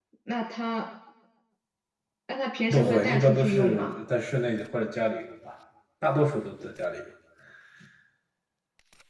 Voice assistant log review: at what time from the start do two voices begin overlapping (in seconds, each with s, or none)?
2.7 s